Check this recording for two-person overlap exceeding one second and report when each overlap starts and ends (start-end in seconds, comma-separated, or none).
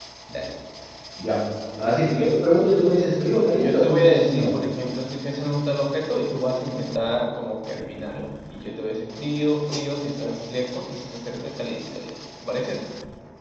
3.3-4.5